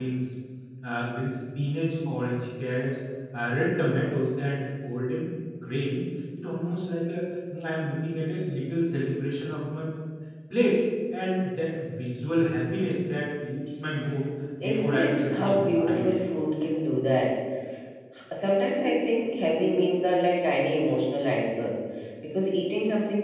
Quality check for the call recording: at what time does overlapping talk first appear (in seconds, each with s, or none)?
14.6 s